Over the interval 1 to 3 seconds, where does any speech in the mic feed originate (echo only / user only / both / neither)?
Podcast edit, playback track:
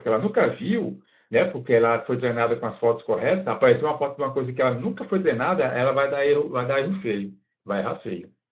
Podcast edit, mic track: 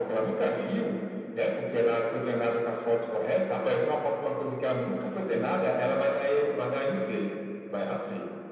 echo only